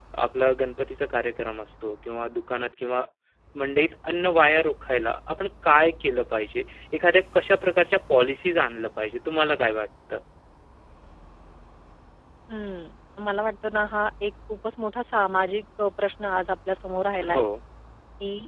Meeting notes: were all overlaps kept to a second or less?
Yes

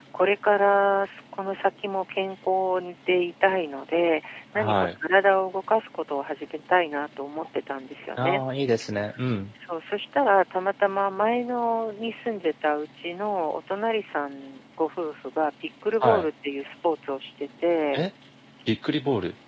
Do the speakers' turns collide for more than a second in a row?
No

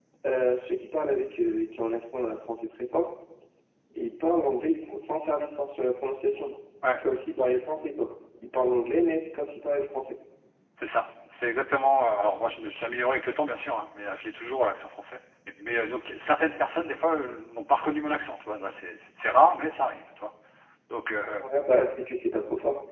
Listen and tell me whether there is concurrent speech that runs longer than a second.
No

